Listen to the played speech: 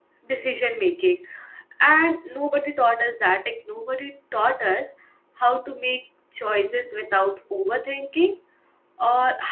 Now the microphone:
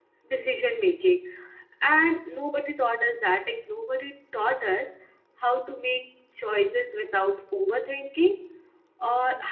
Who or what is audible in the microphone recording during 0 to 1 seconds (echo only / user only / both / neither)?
echo only